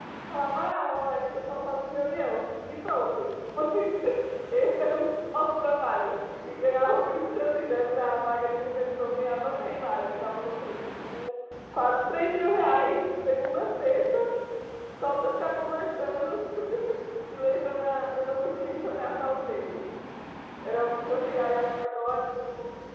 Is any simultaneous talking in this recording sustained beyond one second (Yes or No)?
No